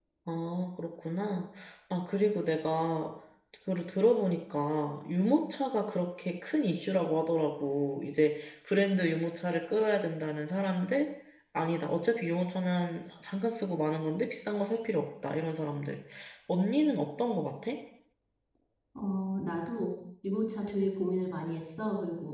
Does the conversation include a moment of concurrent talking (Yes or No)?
No